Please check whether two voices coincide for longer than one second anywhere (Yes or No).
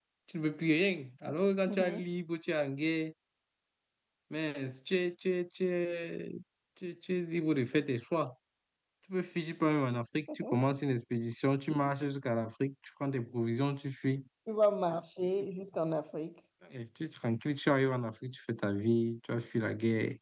No